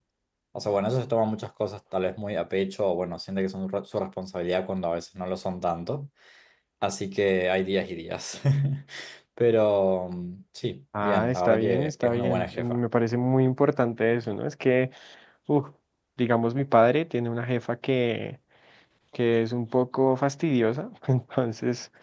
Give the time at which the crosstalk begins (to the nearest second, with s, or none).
11 s